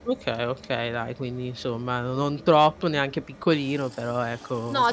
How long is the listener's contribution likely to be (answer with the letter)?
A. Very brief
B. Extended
B